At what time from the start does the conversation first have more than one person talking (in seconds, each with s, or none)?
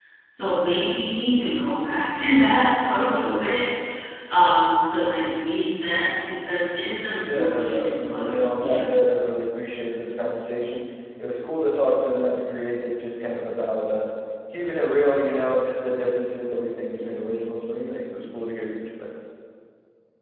7.2 s